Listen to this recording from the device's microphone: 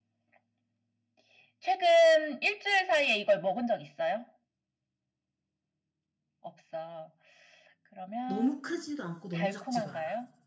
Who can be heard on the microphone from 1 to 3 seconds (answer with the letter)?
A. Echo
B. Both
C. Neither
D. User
A